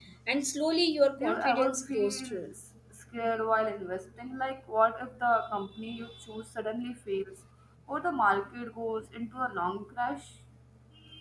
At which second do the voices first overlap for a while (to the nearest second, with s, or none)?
1 s